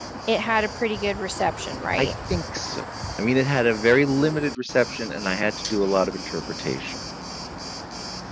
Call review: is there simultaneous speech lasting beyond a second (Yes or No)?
No